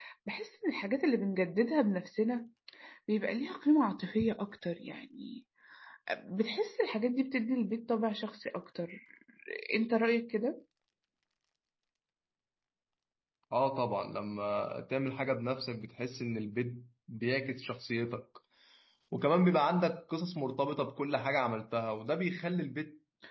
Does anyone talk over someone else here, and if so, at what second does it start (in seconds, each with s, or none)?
none